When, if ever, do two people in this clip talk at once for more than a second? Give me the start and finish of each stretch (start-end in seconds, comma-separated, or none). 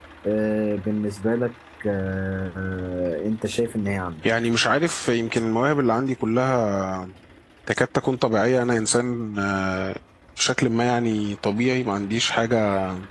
none